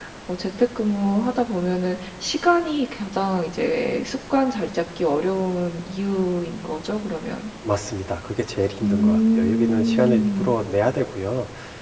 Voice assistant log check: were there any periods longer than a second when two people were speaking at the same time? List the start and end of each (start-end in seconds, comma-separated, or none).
8.8-10.6